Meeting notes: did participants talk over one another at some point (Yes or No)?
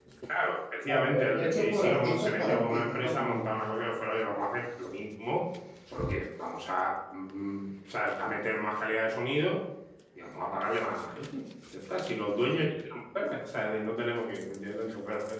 Yes